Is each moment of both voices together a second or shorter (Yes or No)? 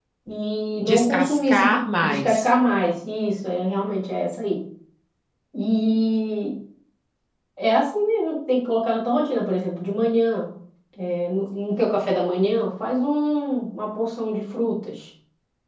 No